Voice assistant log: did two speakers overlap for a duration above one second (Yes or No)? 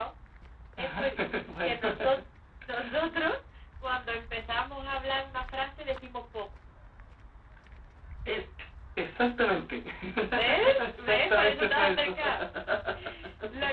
Yes